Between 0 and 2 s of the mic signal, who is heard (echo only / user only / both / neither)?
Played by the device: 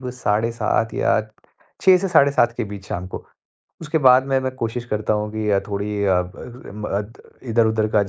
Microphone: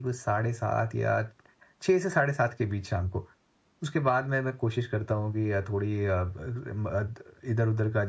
echo only